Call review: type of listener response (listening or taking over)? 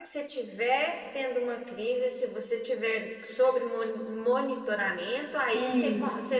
listening